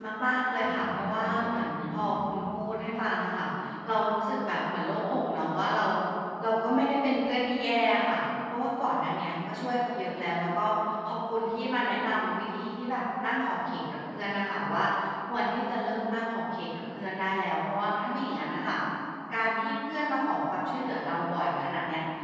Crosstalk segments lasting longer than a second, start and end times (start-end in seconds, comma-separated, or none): 0.6-2.4